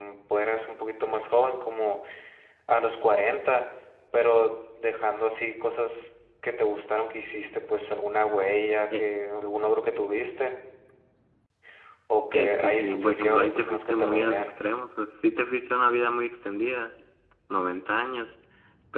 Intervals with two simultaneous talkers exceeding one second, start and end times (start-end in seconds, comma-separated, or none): 12.3-14.5